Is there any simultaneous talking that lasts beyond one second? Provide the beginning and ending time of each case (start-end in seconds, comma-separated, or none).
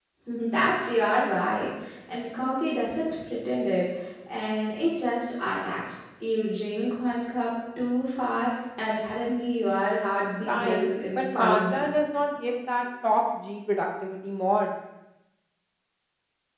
10.5-11.9